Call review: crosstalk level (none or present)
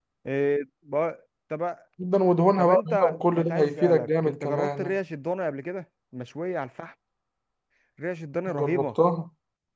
present